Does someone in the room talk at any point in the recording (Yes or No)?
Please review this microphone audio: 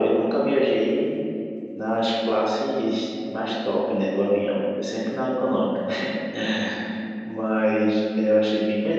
No